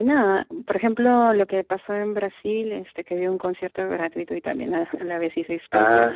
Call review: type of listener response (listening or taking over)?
taking over